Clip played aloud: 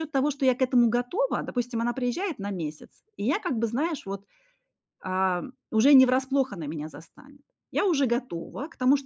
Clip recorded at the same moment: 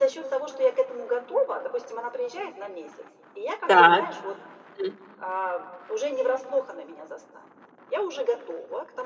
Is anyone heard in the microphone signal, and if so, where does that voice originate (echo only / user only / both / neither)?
both